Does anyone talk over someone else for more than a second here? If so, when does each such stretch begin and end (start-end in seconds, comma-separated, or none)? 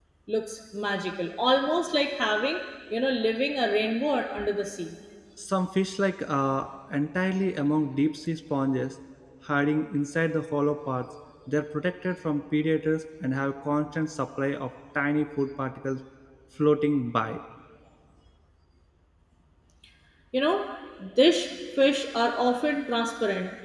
none